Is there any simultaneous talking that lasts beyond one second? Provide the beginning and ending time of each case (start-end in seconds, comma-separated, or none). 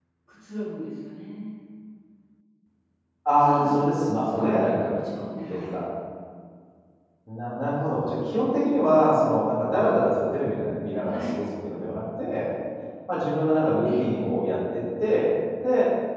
3.4-4.9